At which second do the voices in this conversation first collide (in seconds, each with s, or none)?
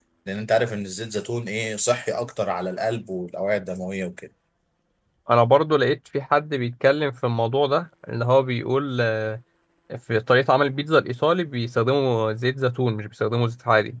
none